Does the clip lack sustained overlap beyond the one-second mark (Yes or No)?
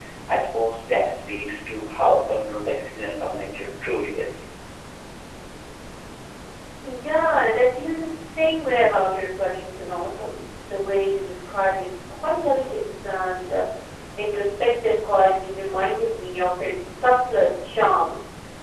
Yes